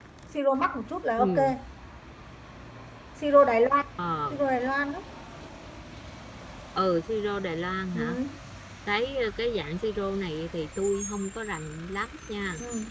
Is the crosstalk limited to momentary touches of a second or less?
Yes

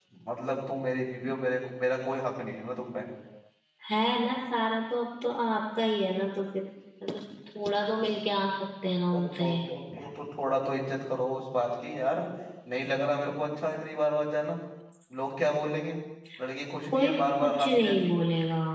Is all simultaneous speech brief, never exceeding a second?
No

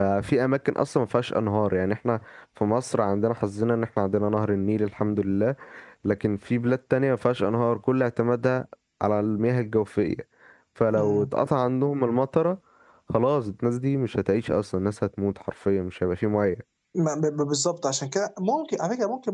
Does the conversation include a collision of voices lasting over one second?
No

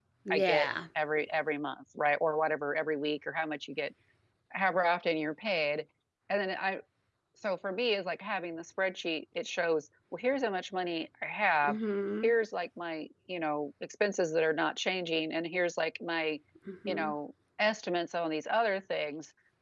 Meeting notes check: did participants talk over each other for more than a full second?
No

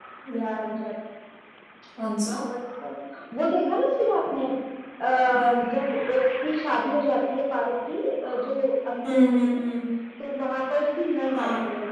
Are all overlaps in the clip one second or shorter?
Yes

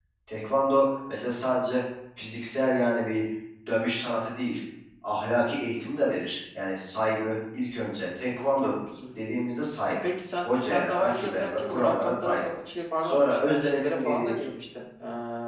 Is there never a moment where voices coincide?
No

